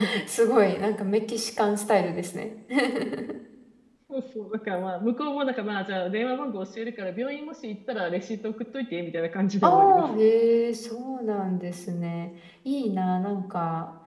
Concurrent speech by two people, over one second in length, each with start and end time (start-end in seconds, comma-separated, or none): none